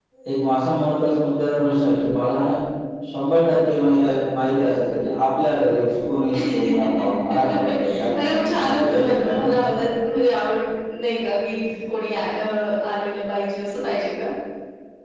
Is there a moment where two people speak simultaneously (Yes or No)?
Yes